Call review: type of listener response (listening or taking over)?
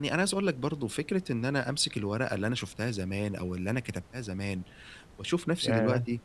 listening